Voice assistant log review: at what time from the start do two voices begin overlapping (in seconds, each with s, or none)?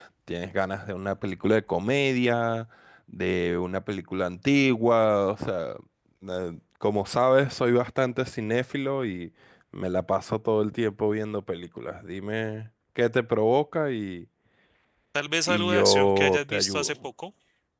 15.5 s